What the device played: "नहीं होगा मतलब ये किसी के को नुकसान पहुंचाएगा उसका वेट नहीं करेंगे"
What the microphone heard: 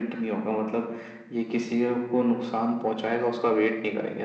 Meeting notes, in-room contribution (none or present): none